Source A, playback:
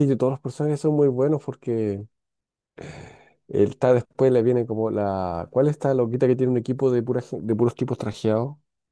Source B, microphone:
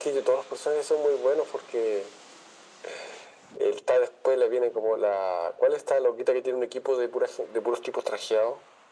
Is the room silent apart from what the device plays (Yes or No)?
Yes